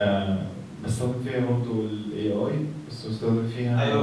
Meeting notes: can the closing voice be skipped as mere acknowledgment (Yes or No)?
No